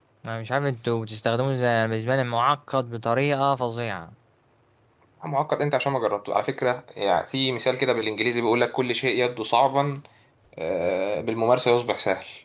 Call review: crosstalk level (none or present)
none